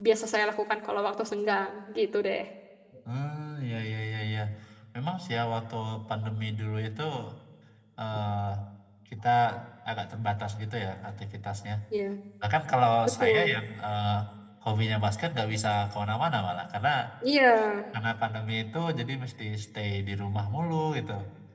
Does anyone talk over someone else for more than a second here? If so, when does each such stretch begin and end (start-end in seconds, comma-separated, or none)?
none